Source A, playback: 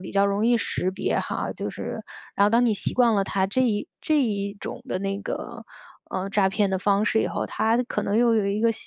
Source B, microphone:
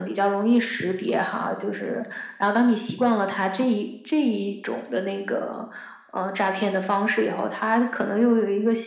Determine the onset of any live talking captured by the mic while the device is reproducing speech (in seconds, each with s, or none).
none